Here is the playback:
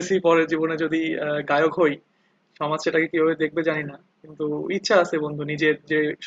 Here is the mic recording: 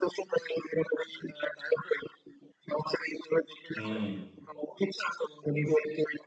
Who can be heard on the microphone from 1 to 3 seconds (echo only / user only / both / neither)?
echo only